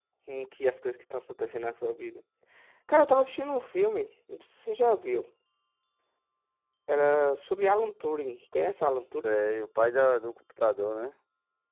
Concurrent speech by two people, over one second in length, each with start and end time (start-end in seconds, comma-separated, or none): none